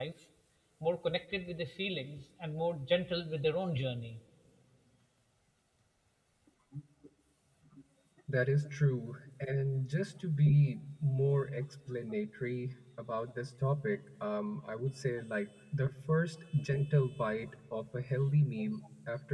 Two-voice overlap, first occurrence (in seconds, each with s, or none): none